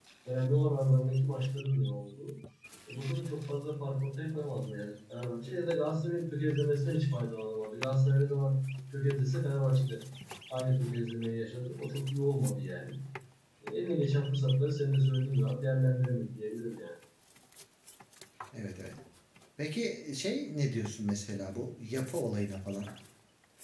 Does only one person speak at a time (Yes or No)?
Yes